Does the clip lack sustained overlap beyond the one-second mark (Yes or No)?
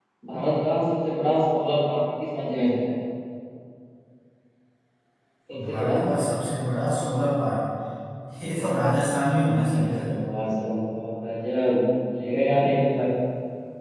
Yes